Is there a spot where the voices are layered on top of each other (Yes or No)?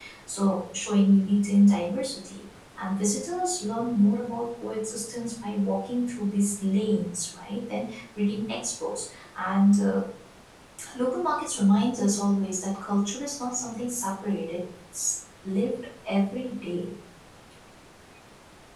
No